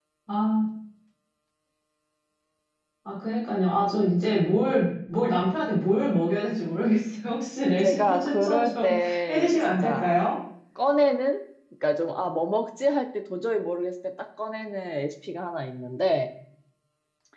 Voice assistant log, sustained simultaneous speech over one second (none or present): present